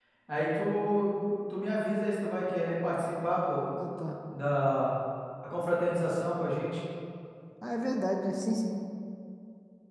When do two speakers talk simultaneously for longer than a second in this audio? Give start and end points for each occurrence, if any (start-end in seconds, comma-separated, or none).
none